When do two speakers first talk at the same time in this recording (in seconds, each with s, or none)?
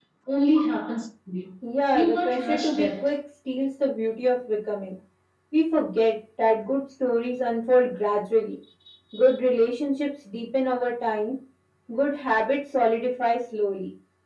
1.9 s